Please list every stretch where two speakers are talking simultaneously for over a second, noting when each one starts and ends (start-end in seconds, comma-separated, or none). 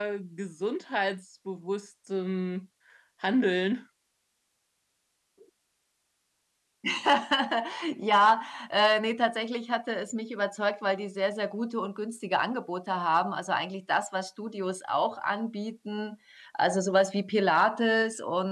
none